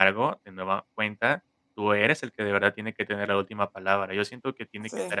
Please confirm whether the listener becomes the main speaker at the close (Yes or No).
No